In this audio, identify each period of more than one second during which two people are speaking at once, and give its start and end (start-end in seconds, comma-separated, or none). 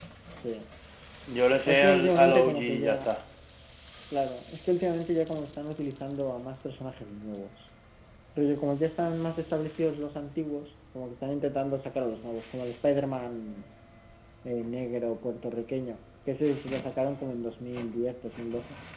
1.7-3.1